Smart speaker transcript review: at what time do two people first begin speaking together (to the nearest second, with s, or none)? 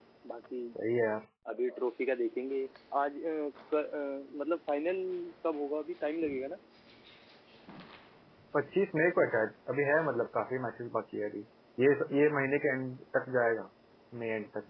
none